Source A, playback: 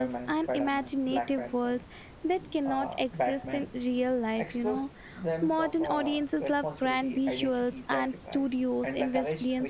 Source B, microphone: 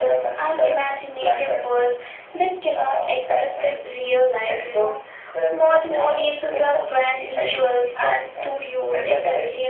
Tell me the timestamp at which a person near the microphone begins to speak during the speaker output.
none

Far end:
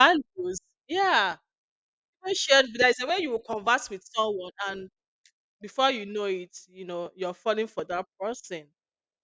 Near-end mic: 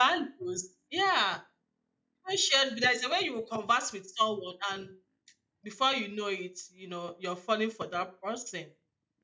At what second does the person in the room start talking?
none

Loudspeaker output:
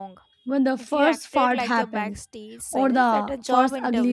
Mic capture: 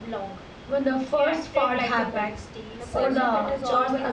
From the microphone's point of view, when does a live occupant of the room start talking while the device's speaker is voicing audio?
2.8 s

